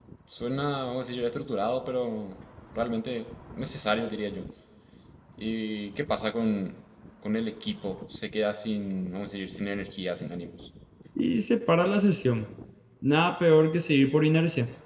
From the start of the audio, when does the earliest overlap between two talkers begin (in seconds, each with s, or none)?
none